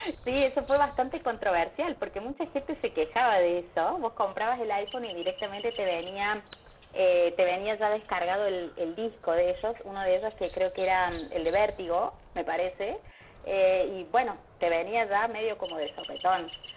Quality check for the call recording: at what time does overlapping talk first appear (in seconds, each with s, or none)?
none